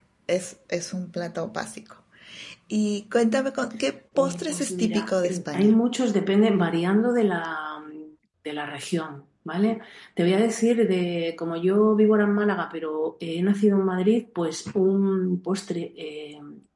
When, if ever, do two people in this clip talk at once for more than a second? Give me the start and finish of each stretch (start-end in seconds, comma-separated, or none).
4.2-5.7